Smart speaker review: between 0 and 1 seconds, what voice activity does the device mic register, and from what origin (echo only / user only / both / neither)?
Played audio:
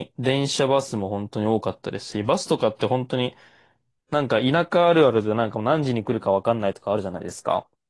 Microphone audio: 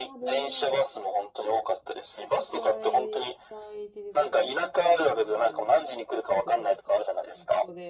both